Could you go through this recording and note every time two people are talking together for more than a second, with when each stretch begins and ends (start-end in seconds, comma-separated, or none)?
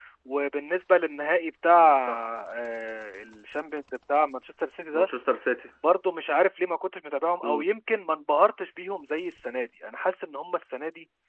none